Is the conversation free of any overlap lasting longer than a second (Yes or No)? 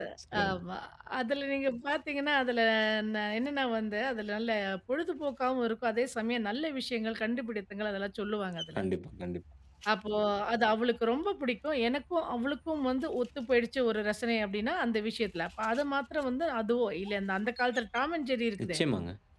Yes